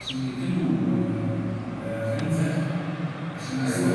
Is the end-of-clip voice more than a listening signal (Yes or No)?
No